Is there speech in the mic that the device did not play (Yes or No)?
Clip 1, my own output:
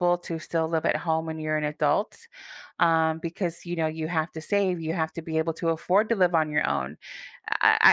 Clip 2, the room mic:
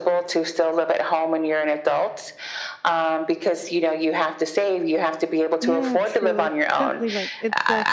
Yes